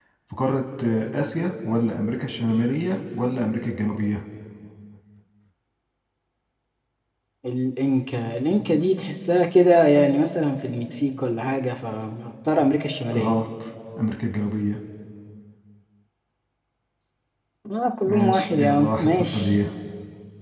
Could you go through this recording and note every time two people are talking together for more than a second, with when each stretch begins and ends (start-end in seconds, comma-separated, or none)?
18.1-19.5